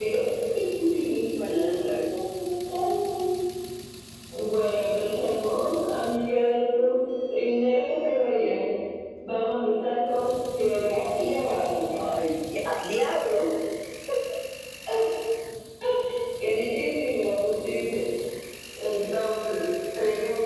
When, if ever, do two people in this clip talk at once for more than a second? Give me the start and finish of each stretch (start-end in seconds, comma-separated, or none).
none